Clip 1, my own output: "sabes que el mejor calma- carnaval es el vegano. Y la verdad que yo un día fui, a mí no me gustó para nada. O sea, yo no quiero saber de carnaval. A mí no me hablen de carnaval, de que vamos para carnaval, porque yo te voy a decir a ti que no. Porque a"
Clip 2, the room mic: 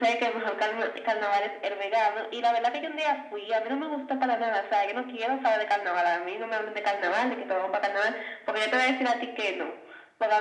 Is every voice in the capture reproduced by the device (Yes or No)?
Yes